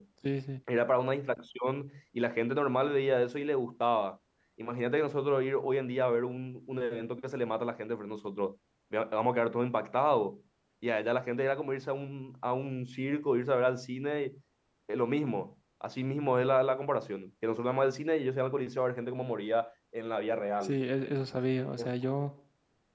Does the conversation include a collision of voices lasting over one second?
No

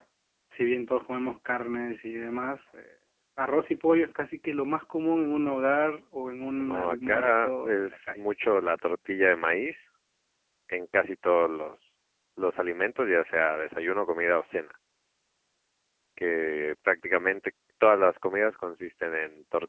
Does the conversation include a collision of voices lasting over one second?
Yes, from 6.6 s

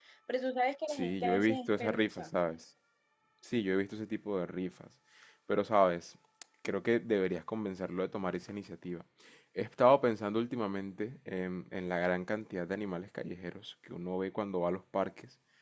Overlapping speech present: Yes, from 0.9 s

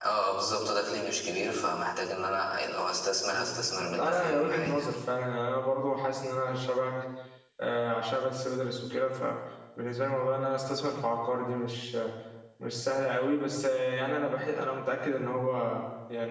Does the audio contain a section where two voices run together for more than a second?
Yes, from 3.3 s

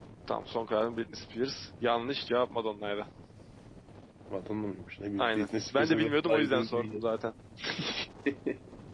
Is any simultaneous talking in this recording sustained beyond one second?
Yes, from 5.2 s

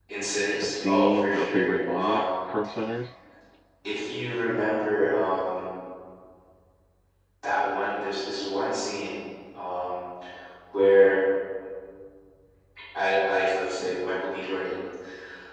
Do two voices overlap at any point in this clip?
Yes, from 0.6 s

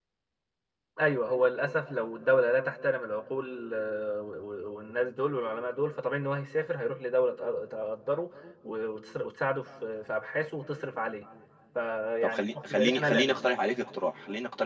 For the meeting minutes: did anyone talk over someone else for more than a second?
Yes, from 12.2 s

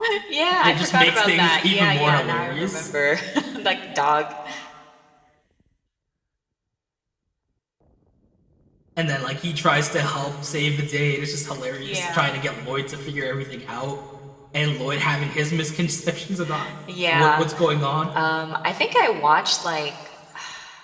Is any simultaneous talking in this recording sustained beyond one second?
Yes, from 0.6 s

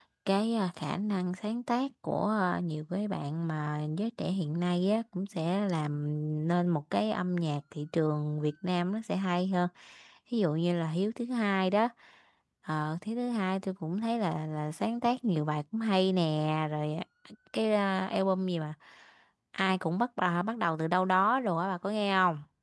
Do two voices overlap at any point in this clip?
No

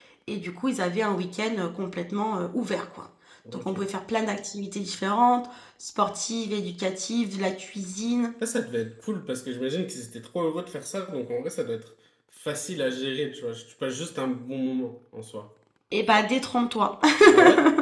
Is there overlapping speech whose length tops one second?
No

